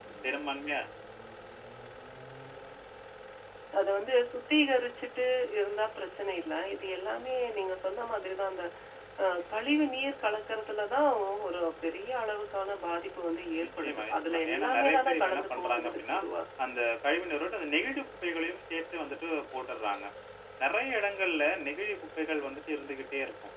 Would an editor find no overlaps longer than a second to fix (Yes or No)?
No